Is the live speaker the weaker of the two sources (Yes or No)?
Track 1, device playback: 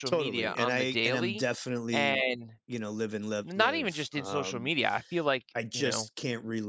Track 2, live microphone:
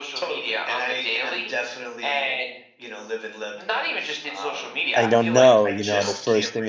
No